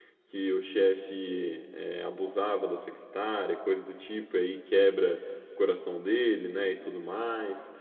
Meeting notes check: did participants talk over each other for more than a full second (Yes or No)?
No